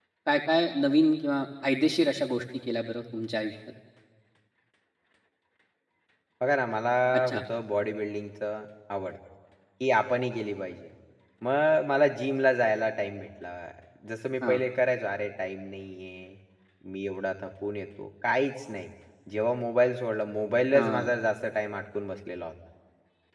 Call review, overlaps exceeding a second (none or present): none